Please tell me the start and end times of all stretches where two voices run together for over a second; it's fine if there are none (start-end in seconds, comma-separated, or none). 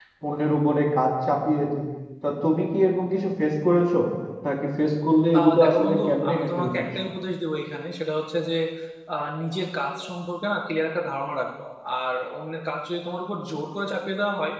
5.4-6.8